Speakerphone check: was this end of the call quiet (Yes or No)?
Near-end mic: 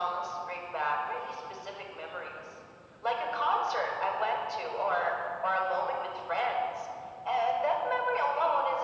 Yes